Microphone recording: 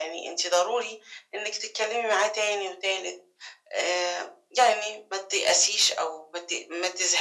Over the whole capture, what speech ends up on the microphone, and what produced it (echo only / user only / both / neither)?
echo only